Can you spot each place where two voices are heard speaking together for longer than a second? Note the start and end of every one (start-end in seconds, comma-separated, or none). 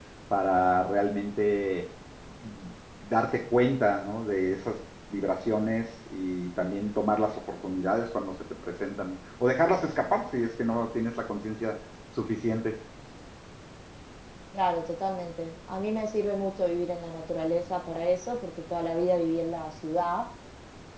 none